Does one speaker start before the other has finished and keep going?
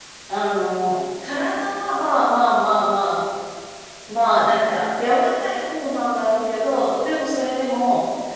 No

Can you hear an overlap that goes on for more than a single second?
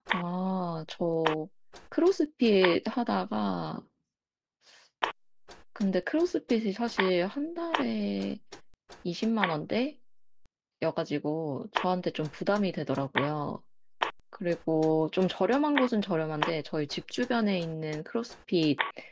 No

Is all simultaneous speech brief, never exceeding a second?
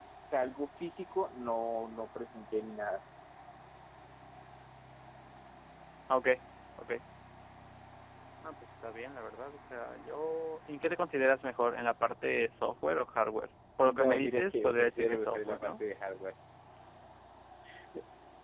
No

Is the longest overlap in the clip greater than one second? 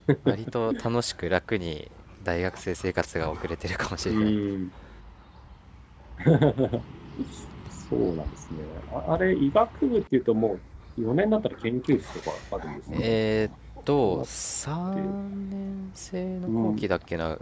No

